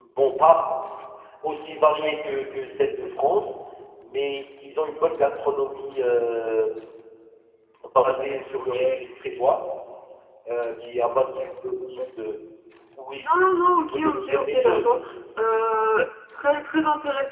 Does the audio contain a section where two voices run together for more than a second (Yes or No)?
Yes